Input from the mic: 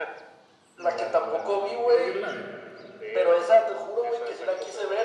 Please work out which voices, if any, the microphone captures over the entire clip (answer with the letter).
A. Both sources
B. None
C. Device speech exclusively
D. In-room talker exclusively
A